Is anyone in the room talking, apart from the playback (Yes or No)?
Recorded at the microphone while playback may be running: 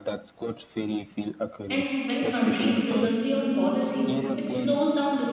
Yes